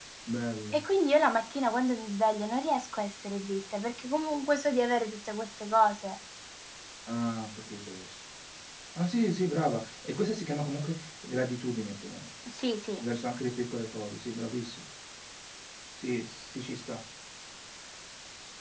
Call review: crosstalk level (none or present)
none